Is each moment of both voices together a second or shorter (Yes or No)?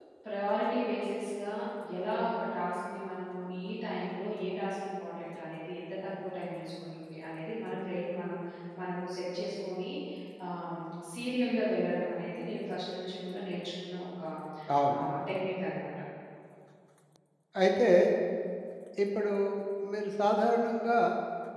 Yes